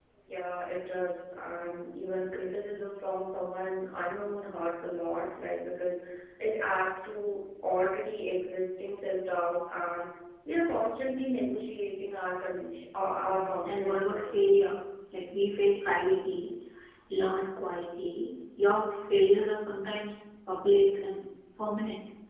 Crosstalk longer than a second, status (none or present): present